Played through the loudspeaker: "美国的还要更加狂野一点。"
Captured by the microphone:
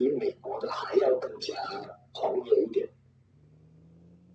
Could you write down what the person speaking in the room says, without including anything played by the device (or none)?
none